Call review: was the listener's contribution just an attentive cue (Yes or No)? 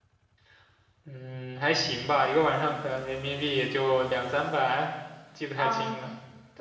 No